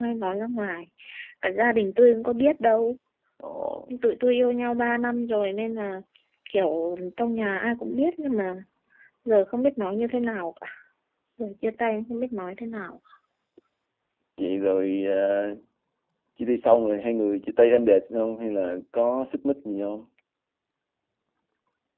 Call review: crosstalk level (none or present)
none